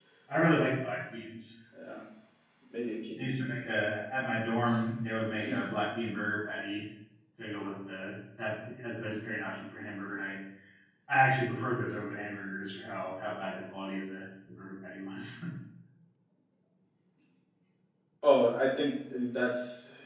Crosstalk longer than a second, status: none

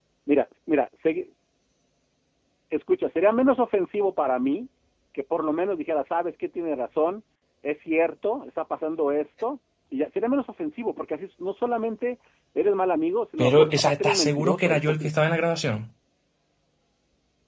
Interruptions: present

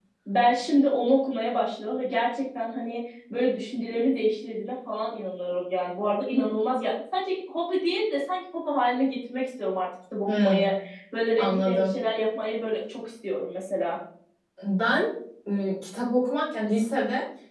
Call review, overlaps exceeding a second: none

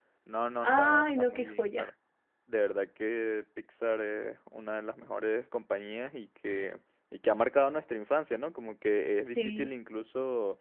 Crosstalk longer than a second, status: present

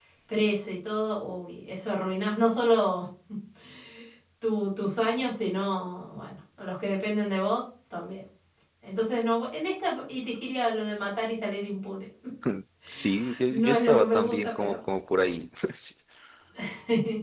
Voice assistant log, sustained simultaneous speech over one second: present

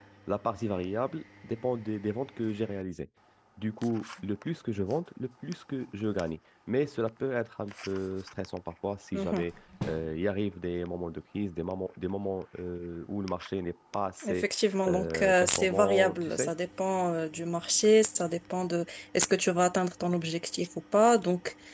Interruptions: present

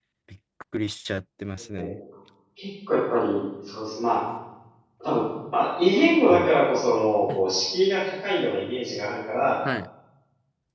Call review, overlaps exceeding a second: none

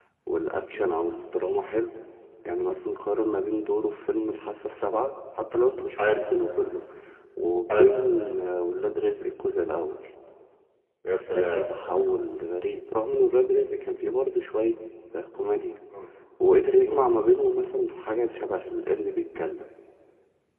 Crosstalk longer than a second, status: none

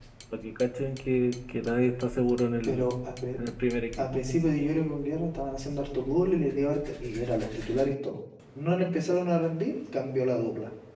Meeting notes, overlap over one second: none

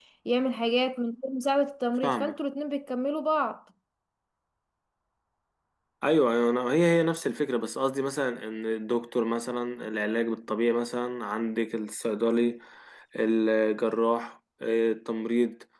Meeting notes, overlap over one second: none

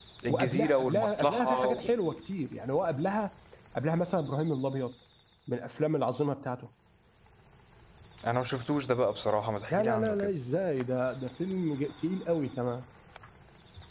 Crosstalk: present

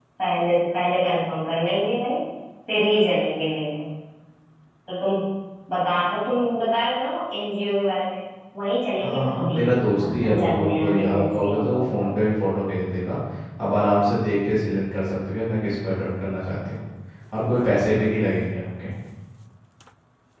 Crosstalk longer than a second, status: present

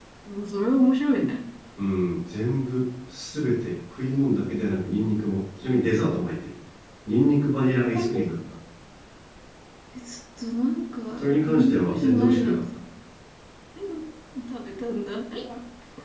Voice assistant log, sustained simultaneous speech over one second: present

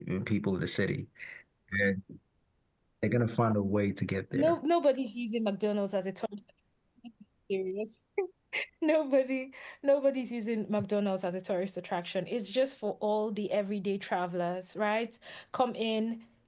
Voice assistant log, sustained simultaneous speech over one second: none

